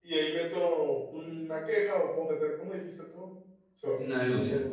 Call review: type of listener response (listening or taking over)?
listening